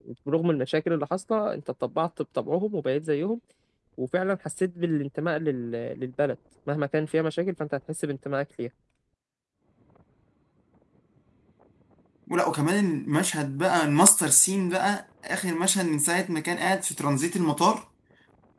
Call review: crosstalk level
none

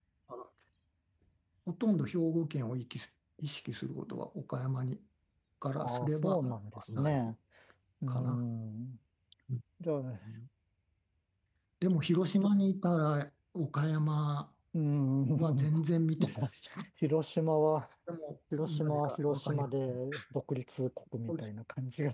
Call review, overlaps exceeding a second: present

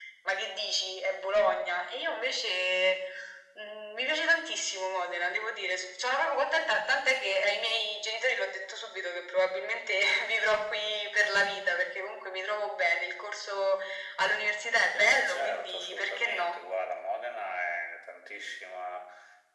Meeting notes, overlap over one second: present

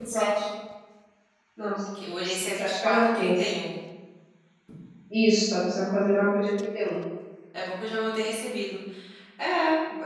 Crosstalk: present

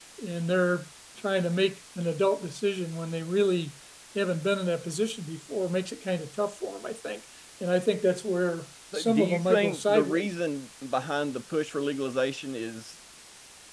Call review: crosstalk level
present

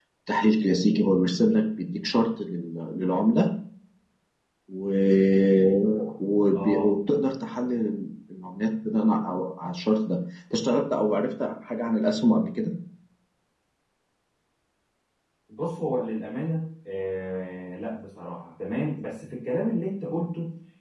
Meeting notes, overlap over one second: none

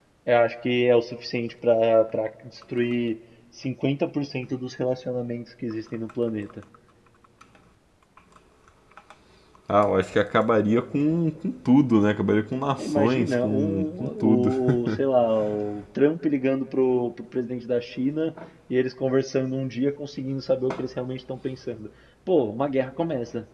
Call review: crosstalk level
present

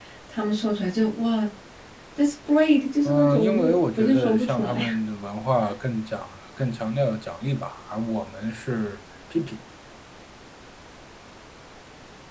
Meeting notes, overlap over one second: present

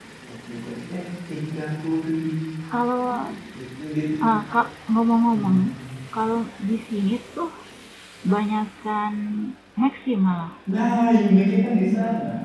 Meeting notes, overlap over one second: none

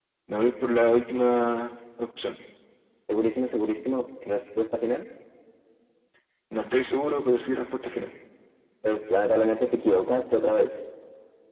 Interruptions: none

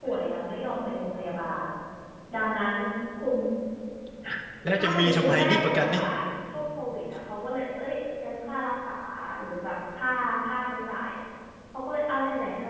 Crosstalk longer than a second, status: present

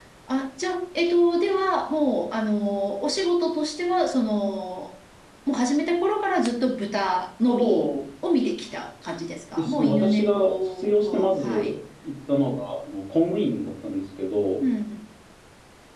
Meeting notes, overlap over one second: present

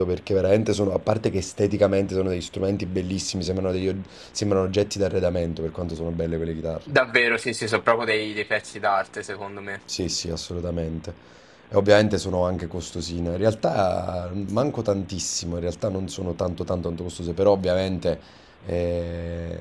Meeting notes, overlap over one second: none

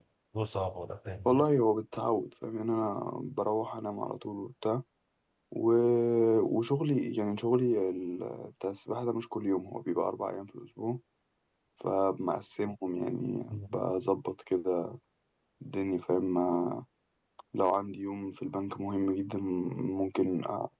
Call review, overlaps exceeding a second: none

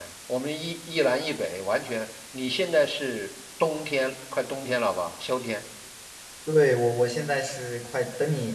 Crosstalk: none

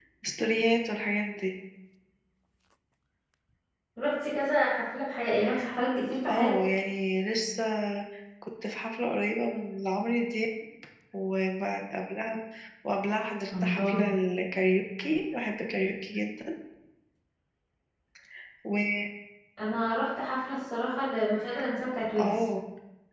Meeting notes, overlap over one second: none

